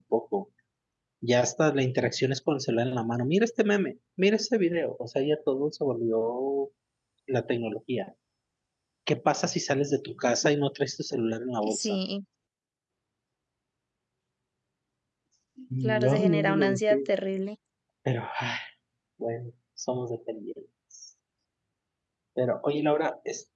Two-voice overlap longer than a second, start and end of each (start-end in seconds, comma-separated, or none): 15.8-17.1